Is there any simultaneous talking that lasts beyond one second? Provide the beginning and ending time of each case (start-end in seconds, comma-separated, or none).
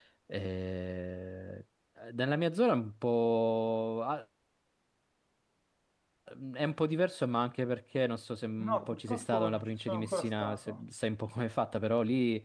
8.6-10.8